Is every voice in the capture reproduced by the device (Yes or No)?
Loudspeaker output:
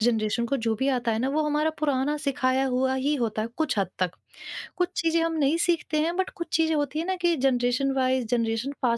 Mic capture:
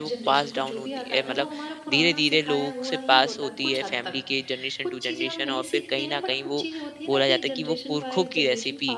No